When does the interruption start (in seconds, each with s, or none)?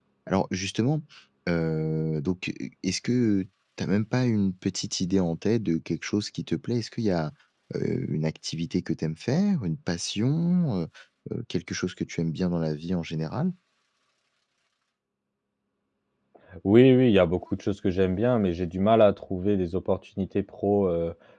none